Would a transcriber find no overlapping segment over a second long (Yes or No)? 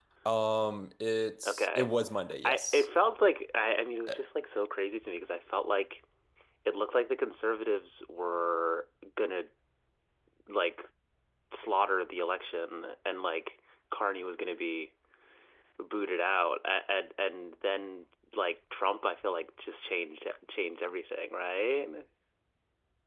Yes